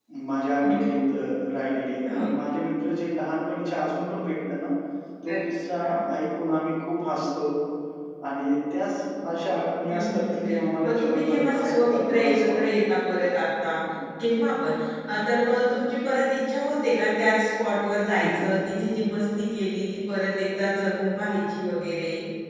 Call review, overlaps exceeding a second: present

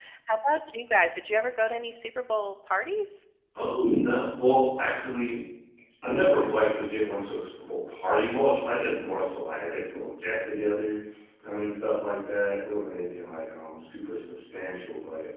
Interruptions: none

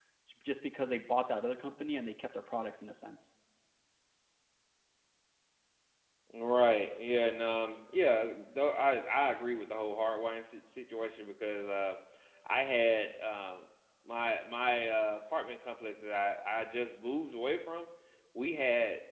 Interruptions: none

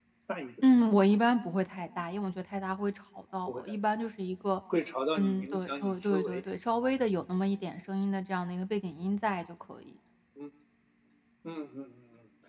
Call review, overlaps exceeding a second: present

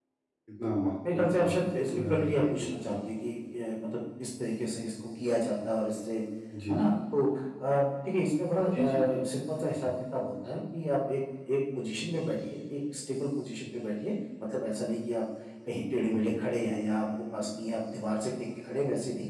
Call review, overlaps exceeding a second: present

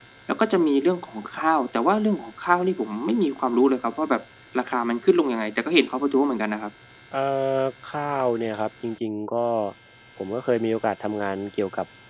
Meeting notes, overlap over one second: none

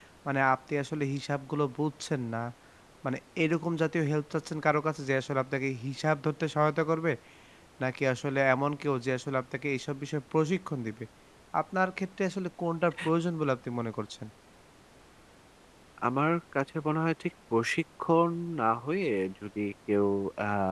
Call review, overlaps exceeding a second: none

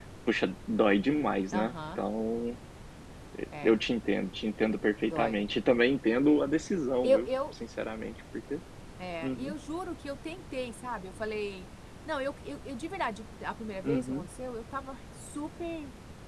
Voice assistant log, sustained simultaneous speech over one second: none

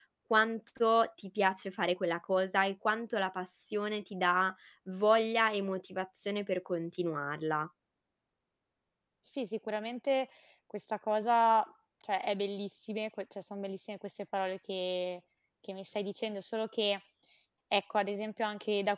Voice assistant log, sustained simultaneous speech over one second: none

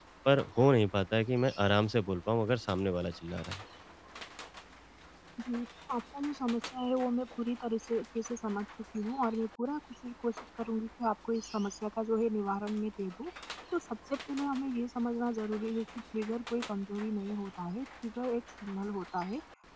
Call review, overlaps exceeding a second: none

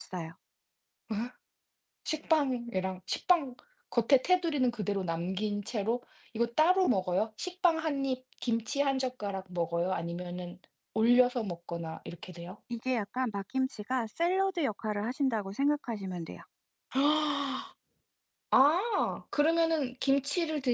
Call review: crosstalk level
none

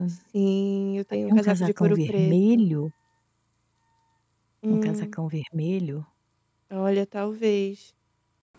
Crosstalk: present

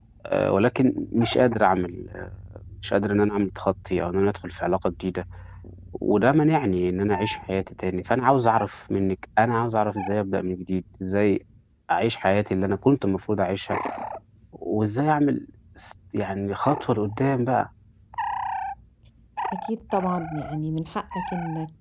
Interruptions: none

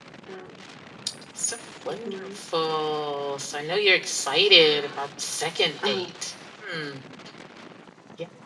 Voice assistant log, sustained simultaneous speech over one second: none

